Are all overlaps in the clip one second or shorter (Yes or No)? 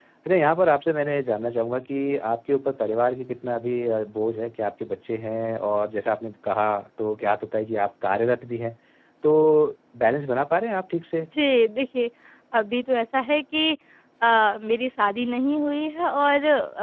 Yes